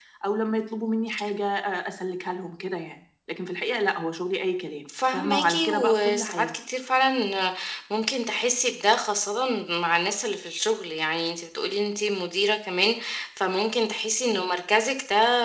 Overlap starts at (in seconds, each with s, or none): 4.9 s